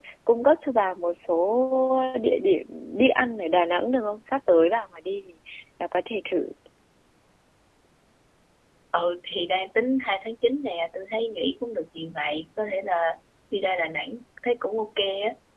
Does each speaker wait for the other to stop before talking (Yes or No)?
Yes